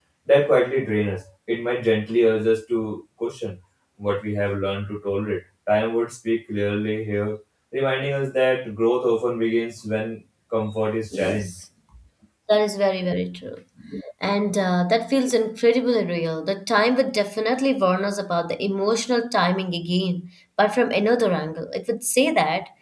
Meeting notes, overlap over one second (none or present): none